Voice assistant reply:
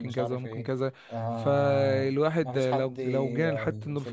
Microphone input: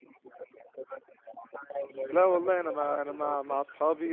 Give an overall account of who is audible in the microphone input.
both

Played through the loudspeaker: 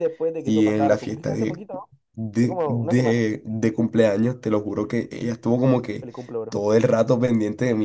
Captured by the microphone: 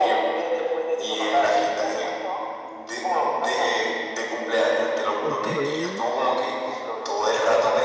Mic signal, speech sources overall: both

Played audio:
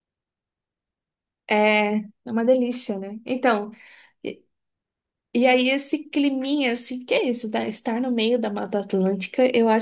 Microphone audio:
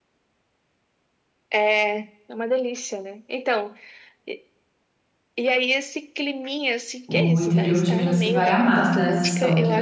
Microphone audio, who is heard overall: both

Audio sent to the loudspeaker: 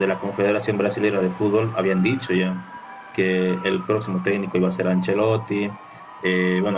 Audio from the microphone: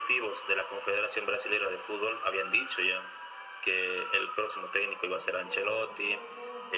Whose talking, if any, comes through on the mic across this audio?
both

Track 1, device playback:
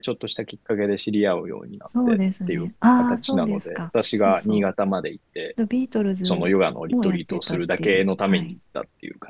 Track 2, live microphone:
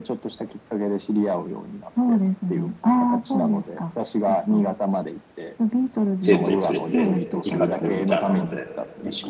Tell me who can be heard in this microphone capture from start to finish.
both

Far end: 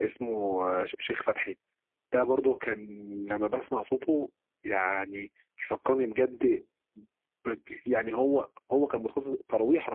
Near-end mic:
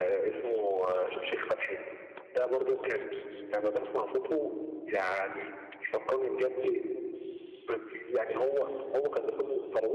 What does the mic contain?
echo only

